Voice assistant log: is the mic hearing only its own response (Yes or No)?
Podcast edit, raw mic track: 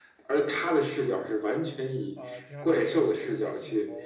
No